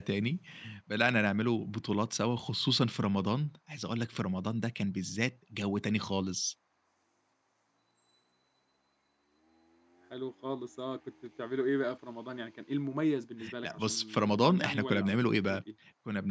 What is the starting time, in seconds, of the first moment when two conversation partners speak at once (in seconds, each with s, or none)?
13.4 s